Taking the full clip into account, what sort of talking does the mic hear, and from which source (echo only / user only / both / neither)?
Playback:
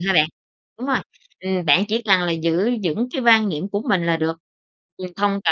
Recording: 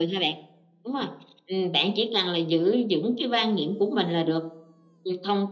echo only